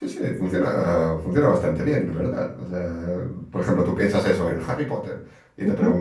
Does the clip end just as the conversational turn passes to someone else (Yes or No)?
No